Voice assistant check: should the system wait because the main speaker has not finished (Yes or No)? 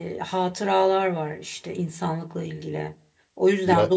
Yes